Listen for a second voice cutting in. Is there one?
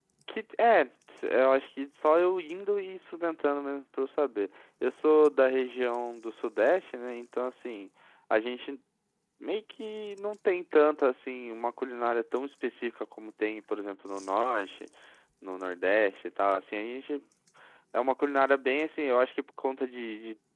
No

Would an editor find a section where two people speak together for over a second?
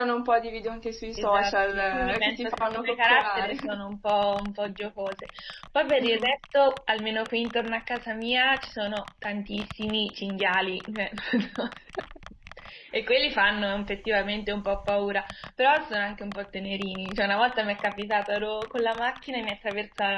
Yes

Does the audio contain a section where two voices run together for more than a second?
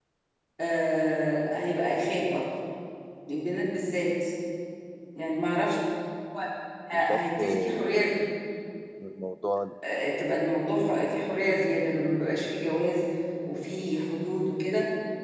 Yes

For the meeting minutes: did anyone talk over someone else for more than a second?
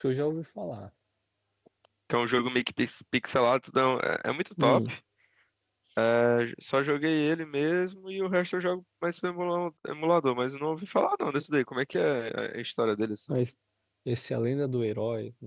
No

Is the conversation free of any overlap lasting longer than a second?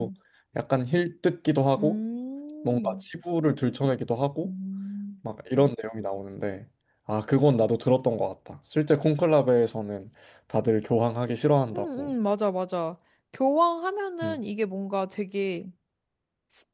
Yes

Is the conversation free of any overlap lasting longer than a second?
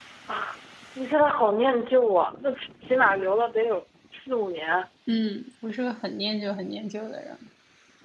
Yes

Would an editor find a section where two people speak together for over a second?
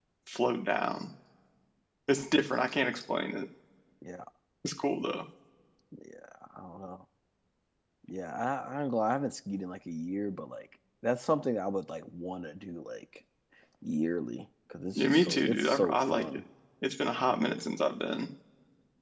Yes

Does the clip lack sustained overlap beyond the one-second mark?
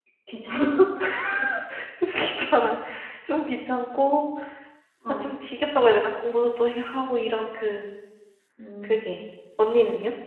Yes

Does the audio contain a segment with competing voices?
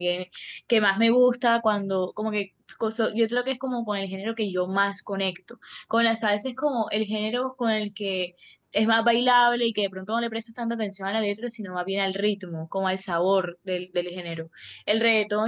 No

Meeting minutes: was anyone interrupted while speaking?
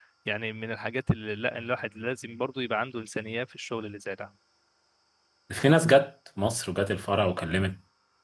No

